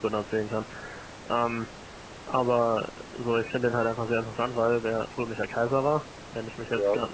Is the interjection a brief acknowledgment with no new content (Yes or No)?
Yes